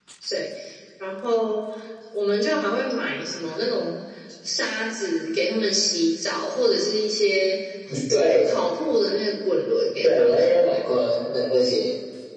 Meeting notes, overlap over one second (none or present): none